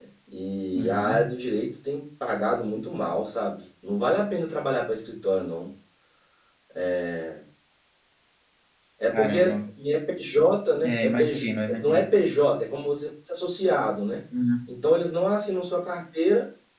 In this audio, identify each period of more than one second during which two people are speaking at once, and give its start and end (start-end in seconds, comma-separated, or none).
10.8-12.1